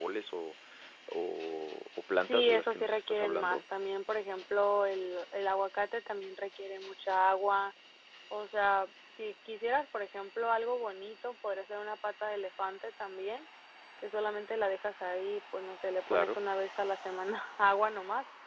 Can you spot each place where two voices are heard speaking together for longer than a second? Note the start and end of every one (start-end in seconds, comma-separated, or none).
2.2-3.6